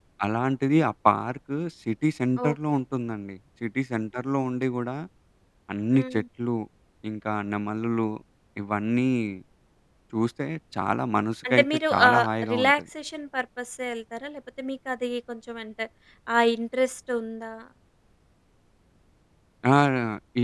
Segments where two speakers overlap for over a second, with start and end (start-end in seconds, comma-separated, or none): 11.5-12.7